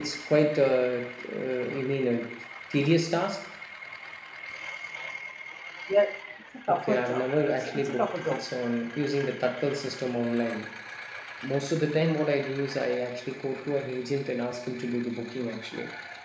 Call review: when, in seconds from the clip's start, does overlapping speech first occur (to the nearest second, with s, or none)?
7 s